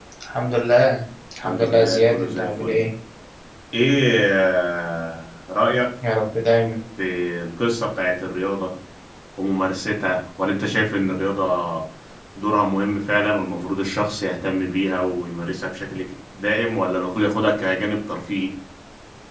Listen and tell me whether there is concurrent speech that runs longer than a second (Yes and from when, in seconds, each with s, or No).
Yes, from 1.4 s